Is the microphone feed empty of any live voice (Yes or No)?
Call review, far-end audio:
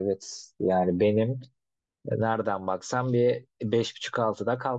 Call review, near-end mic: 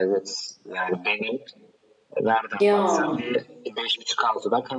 No